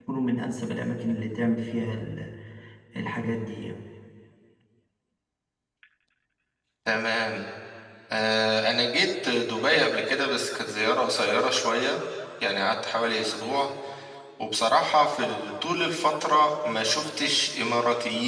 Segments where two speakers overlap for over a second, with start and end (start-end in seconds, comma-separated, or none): none